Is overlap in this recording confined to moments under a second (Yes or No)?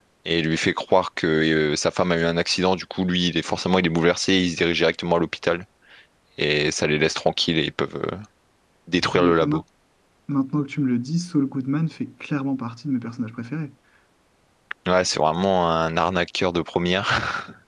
Yes